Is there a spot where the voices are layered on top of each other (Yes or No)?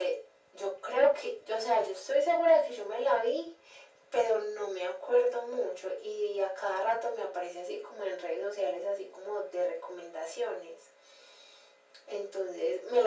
No